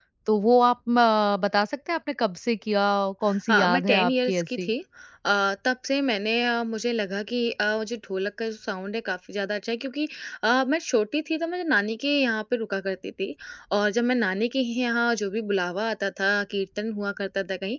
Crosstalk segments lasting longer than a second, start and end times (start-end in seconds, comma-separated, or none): 3.5-4.7